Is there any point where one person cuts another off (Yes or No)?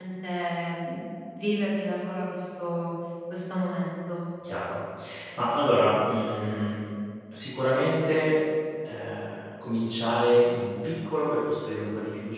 No